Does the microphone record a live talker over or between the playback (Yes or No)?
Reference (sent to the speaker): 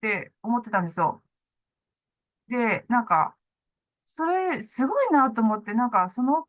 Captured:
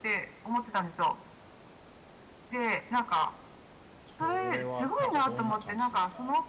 Yes